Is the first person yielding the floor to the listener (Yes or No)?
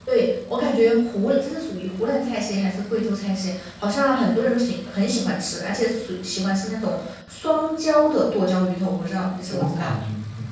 Yes